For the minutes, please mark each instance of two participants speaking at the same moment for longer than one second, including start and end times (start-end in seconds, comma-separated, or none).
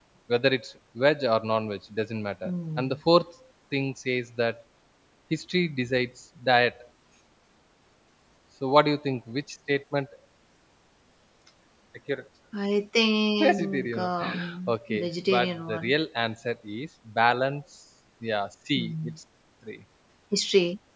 13.4-15.9